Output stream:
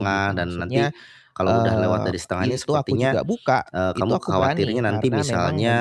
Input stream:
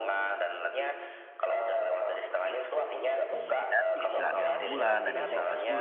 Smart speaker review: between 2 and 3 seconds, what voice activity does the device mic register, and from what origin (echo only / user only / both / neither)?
echo only